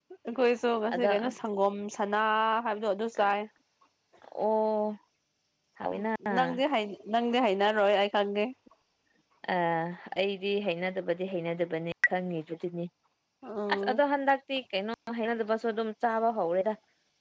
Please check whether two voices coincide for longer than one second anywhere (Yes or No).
No